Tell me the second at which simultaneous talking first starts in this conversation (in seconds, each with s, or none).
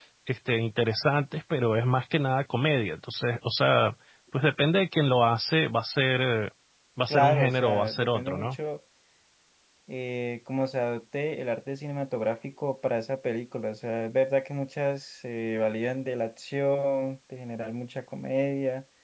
7.1 s